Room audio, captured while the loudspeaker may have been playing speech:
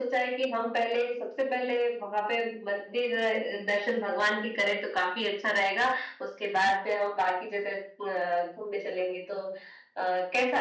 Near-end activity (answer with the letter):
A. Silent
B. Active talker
A